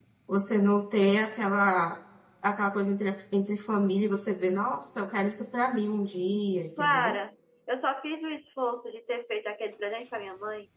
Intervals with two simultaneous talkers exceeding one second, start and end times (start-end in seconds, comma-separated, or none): none